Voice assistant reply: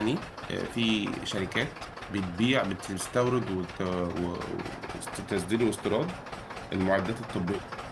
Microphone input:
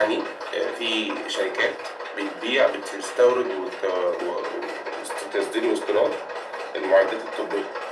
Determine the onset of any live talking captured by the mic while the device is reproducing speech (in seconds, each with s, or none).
none